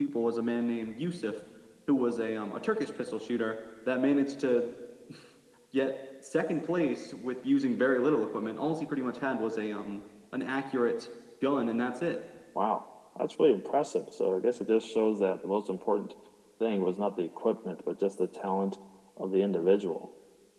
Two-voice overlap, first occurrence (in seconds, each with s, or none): none